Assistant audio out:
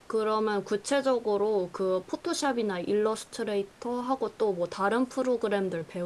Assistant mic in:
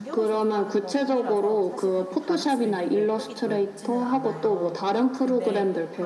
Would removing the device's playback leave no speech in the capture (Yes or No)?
No